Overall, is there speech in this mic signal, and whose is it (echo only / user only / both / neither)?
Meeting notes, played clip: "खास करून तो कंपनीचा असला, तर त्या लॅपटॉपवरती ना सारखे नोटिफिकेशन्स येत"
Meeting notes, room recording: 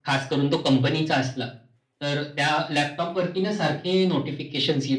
echo only